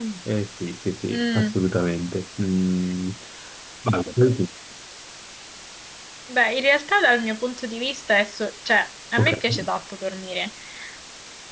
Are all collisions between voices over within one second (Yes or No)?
Yes